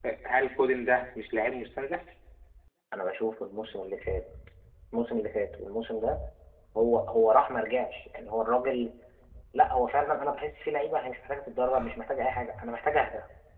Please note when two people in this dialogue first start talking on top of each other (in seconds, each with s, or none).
none